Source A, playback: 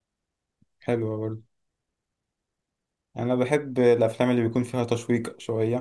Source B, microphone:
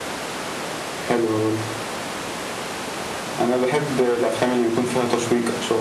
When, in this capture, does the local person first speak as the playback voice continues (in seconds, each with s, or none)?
none